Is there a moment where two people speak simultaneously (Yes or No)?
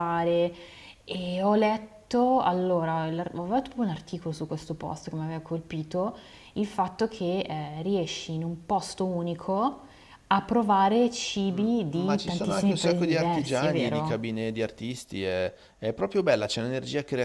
Yes